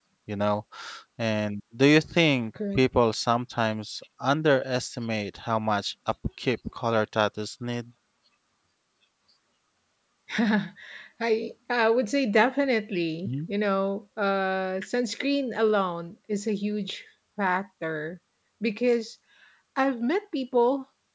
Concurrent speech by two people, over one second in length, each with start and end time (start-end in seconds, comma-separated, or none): none